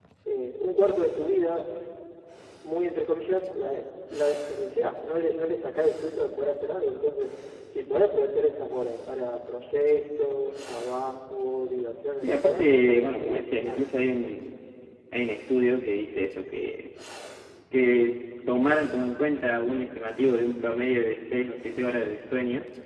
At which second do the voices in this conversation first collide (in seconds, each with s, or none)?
12.2 s